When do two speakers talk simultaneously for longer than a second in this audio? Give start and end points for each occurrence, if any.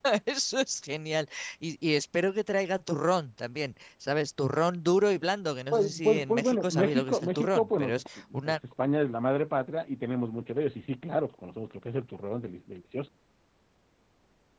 5.7-8.0

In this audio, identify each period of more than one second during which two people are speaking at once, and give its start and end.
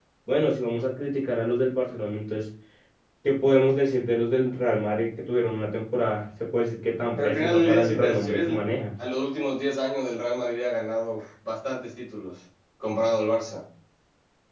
7.2-8.5

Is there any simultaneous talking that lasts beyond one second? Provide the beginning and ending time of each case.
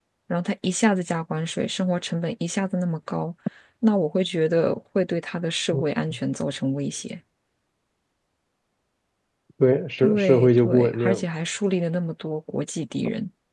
10.0-11.2

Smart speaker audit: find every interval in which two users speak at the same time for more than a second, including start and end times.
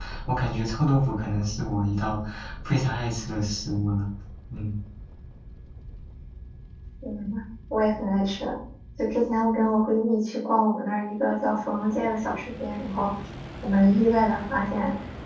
none

